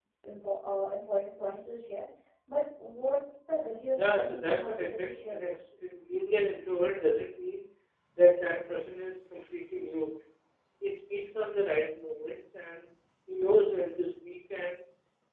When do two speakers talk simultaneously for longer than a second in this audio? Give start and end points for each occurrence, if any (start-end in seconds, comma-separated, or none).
3.9-5.5